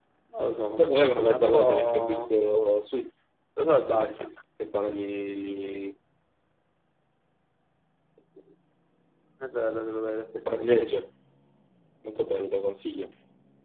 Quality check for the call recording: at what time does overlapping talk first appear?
0.8 s

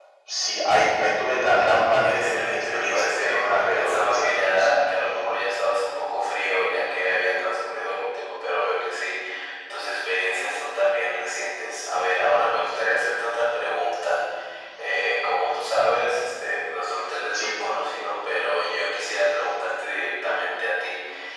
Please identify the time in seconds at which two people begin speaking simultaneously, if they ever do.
2.0 s

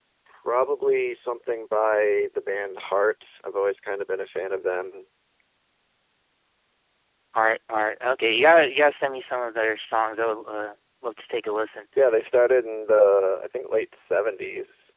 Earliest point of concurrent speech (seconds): none

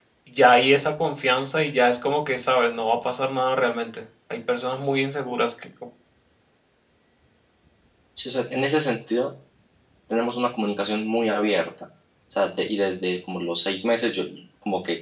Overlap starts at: none

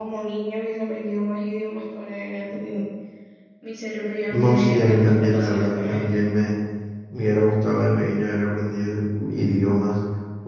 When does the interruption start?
4.3 s

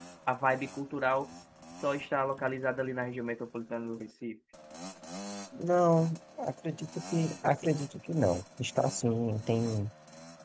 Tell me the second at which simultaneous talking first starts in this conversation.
none

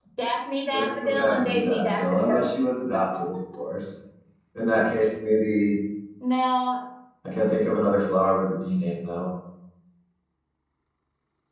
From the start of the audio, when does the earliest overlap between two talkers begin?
0.7 s

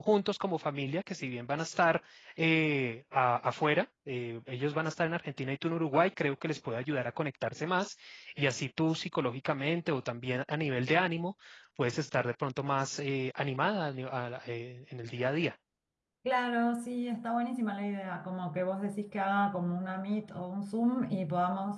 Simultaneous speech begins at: none

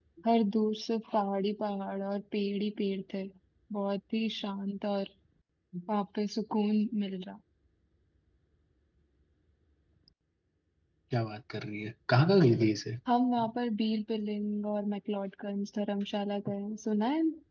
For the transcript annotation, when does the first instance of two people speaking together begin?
none

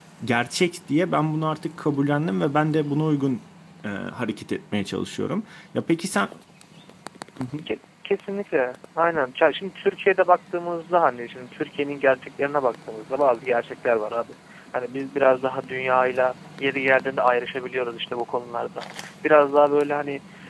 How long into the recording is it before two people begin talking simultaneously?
none

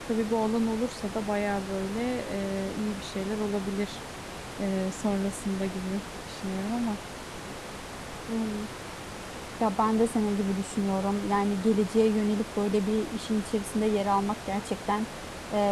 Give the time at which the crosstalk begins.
none

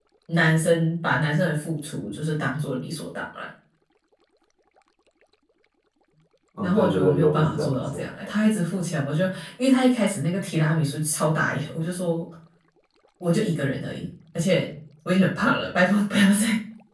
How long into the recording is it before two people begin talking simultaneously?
6.6 s

